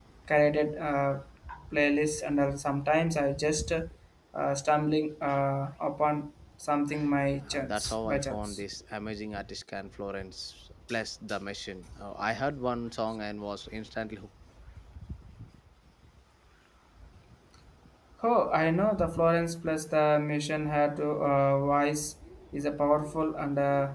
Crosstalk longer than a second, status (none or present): present